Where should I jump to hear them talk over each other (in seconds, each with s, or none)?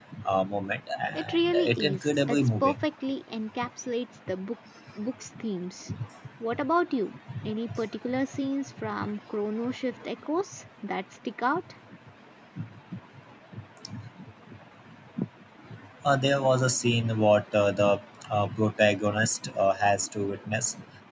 1.1 s